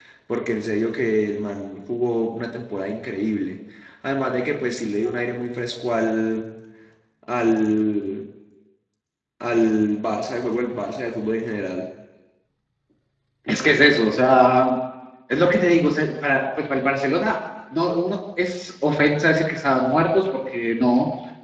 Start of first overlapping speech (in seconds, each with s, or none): none